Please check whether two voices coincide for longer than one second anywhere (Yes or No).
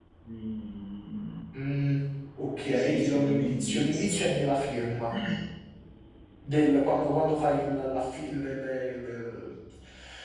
Yes